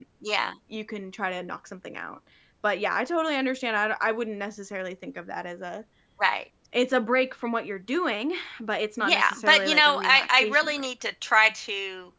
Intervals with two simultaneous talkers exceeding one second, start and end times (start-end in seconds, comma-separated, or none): 9.0-10.9